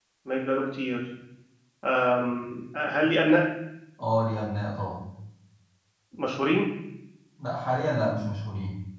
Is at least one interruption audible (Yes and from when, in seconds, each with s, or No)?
No